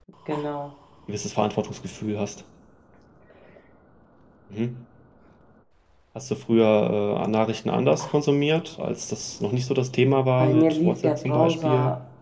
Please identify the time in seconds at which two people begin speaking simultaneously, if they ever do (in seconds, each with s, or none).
10.4 s